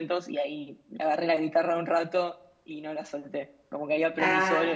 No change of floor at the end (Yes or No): Yes